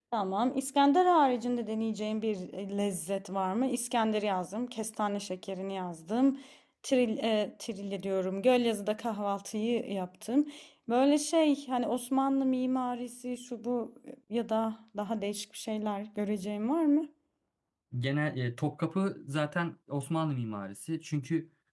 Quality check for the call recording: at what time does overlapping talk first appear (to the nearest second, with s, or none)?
none